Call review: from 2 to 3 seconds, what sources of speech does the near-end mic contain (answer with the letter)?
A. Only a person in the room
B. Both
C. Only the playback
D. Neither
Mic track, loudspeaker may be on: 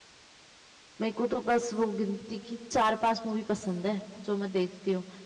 A